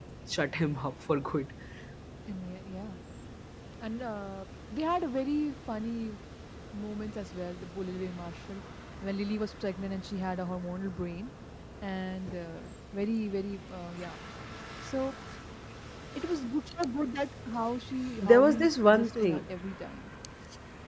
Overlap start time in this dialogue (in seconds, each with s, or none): 18.2 s